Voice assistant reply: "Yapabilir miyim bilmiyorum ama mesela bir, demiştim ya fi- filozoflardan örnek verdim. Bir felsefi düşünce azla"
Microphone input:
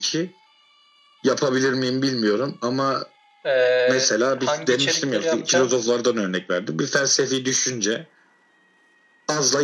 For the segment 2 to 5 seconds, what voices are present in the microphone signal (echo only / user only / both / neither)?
both